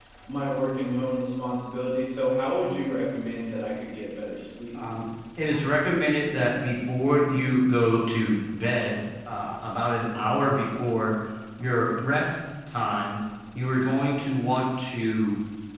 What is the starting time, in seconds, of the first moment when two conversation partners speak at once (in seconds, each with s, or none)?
none